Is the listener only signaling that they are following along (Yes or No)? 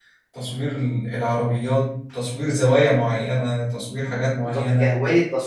No